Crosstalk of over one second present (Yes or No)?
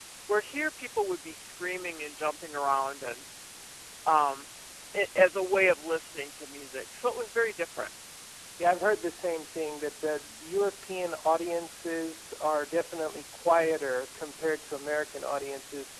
No